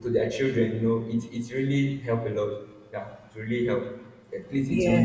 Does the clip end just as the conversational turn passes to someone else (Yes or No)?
No